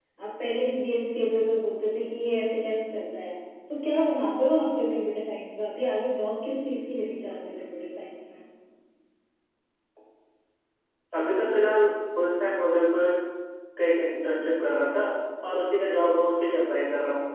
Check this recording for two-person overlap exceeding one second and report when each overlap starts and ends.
none

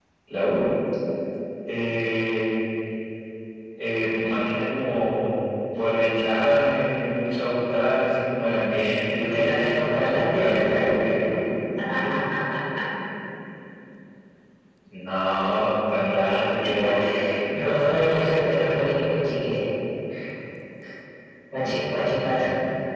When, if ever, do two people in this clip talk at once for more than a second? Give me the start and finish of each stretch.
9.2-10.9, 17.6-18.8

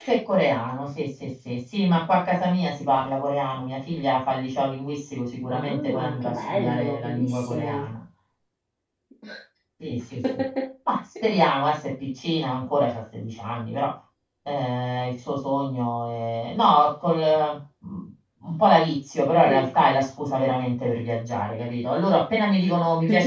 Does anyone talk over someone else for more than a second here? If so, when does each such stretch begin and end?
5.5-7.9

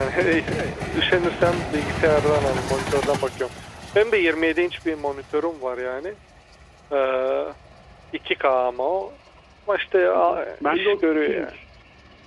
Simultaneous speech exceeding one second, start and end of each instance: 10.1-11.5

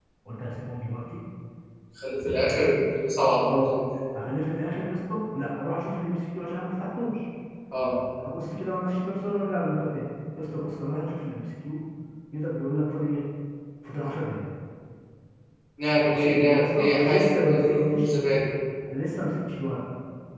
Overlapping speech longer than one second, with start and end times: 16.1-18.1

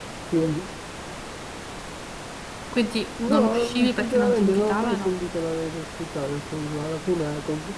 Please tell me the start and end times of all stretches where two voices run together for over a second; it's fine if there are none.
3.3-5.1

